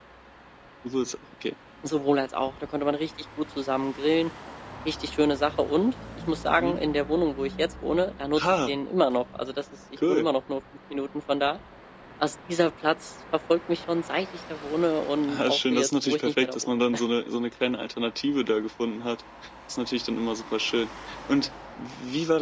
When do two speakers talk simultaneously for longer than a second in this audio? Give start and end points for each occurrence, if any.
15.3-16.8

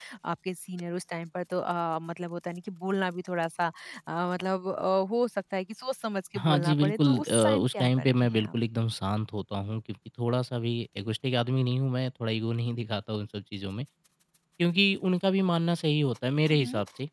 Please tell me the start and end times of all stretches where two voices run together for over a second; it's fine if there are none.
6.4-8.5

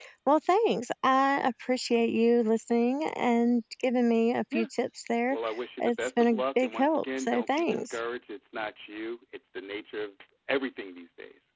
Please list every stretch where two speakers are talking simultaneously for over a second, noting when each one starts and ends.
5.8-8.0

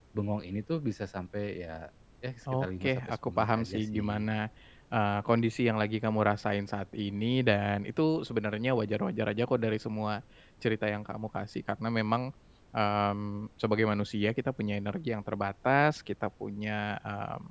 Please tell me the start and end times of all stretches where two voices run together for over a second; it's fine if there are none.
2.5-4.2

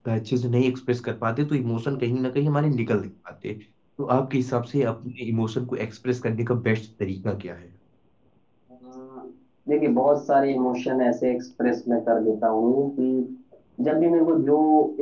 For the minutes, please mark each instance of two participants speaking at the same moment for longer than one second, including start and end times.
none

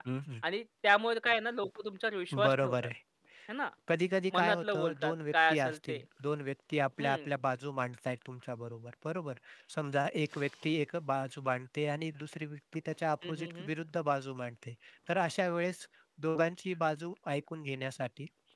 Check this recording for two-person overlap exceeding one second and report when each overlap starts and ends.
4.3-6.0

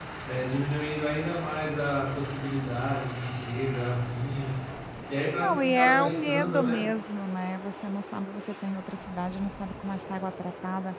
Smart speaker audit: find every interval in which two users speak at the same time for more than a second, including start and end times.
5.3-6.8

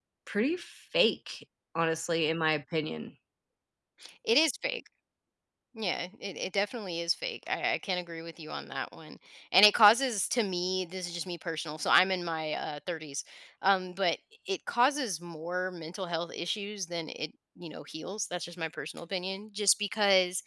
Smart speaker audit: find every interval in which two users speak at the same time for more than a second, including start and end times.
none

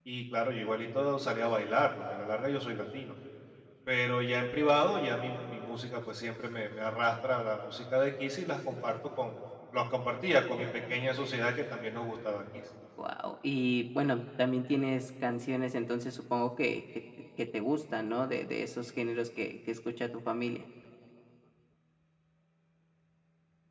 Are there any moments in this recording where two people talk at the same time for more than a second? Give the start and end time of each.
none

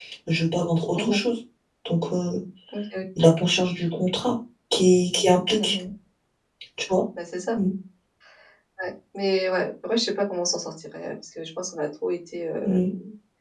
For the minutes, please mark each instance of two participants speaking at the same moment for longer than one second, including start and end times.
none

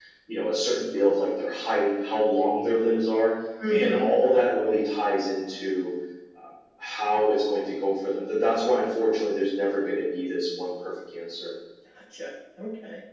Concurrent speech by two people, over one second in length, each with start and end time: none

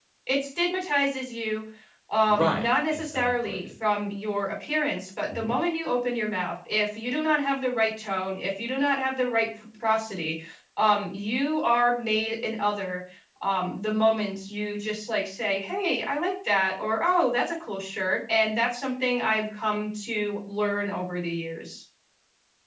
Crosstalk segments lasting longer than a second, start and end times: 2.3-3.7

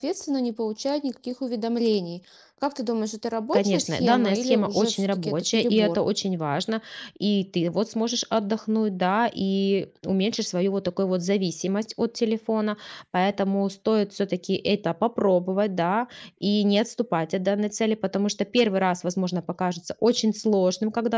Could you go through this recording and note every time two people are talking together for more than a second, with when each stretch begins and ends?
3.5-6.0

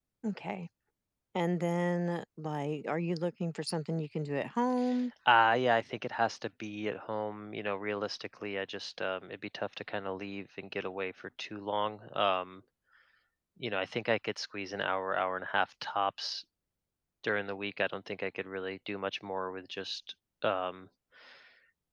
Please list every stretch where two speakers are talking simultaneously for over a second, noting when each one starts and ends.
none

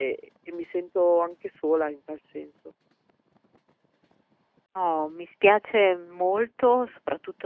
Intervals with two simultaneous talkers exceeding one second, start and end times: none

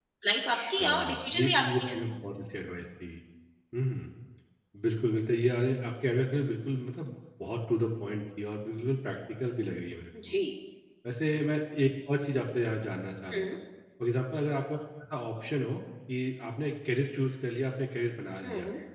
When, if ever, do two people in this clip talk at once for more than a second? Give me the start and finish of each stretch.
0.5-2.0

